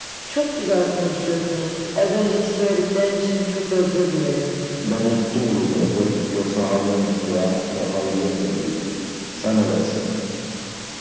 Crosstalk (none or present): none